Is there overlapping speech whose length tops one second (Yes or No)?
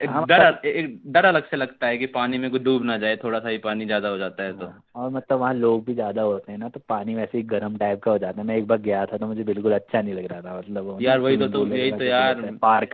Yes